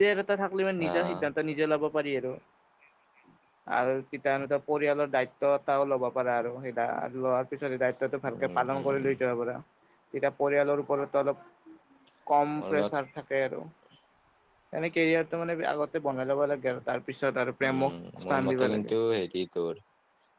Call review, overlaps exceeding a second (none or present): present